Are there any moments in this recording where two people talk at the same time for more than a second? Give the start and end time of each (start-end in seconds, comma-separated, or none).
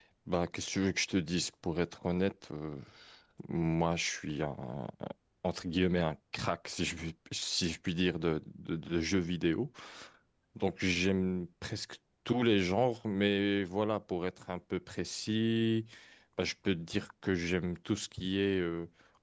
none